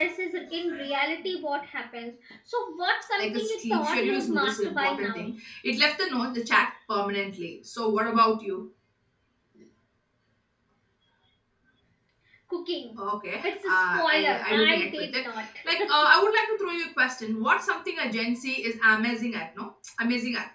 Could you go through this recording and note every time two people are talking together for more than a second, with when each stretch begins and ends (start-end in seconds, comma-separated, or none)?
3.2-5.3, 13.4-15.2